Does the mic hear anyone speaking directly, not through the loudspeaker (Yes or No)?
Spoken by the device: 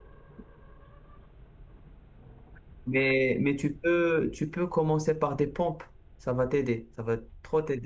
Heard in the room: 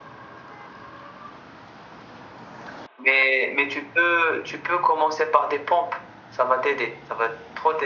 No